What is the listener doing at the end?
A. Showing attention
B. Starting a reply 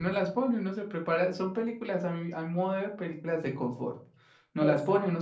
A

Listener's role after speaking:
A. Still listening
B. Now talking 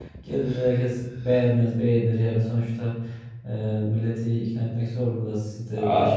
B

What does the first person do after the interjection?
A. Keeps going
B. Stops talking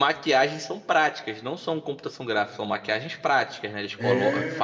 A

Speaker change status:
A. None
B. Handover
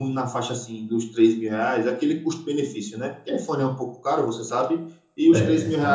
A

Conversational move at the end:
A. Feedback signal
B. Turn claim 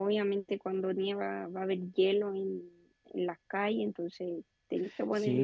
B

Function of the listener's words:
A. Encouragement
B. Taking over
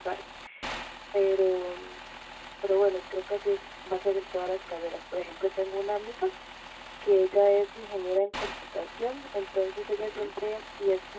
A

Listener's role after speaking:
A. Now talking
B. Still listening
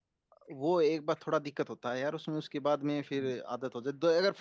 B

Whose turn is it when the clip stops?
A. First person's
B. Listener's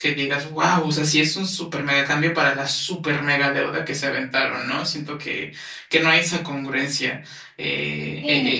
B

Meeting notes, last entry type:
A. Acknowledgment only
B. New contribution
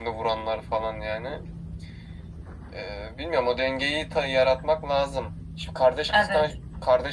A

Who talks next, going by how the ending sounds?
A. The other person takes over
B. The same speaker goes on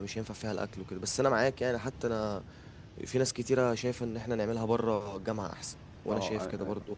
A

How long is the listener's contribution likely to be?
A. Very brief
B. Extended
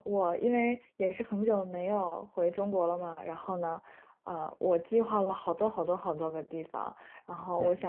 A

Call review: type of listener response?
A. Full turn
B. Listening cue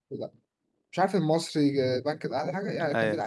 B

